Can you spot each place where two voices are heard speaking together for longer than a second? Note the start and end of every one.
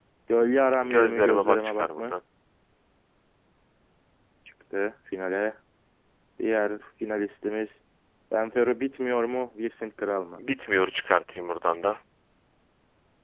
0.8-2.2

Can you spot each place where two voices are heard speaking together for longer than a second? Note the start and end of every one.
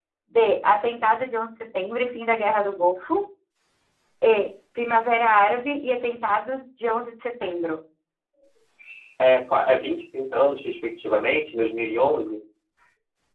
none

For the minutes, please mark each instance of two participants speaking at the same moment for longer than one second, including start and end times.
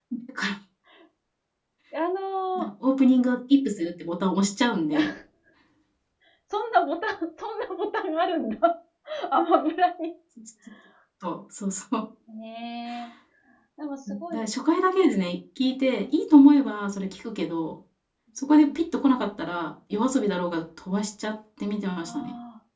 none

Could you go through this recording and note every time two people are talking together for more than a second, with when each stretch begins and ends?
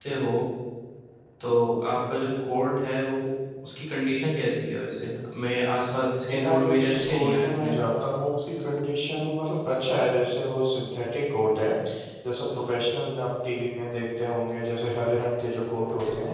6.3-7.7

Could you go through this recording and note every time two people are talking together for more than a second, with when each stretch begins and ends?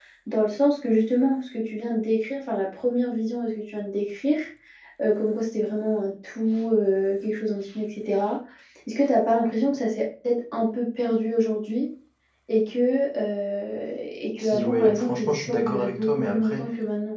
14.4-16.6

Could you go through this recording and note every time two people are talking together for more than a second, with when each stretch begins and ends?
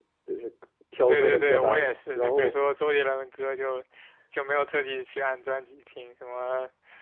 1.1-2.6

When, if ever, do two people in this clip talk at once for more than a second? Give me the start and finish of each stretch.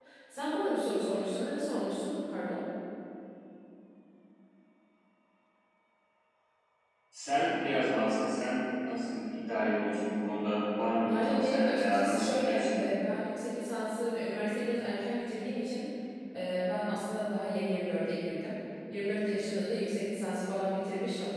11.1-12.9

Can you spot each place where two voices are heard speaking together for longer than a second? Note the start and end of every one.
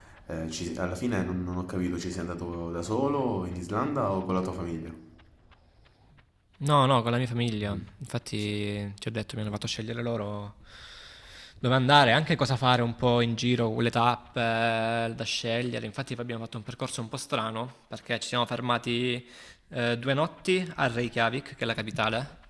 none

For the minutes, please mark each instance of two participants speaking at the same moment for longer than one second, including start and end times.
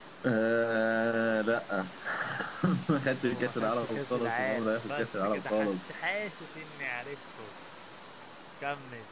3.1-5.7

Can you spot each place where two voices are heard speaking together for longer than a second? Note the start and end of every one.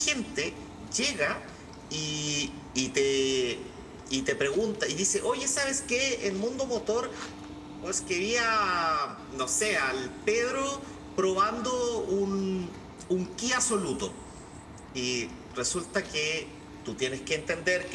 none

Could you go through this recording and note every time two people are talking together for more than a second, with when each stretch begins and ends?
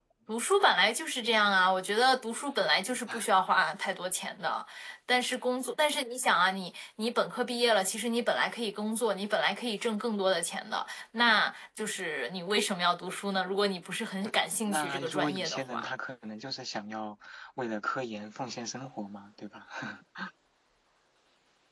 14.7-15.9

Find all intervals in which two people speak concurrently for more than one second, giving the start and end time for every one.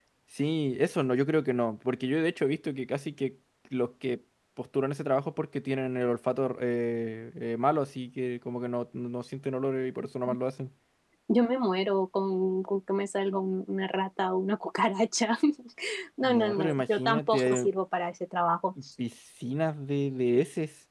16.2-17.7

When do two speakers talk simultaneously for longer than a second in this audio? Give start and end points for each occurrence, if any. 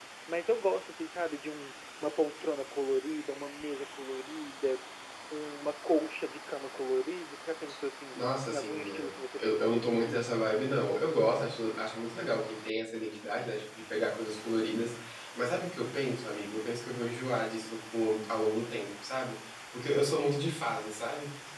8.1-10.3

